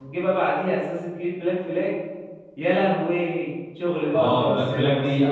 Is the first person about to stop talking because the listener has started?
Yes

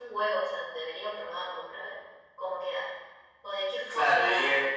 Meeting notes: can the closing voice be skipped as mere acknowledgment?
No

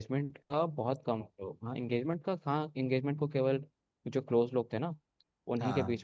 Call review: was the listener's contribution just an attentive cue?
Yes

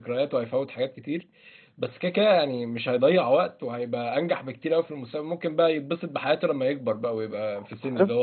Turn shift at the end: No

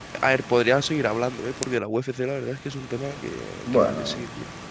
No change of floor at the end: No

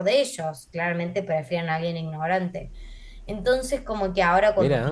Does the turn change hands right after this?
No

